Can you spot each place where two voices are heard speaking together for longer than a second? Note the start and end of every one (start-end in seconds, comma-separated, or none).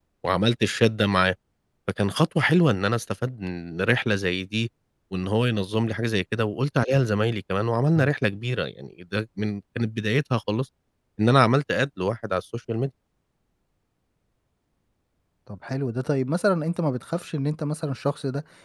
none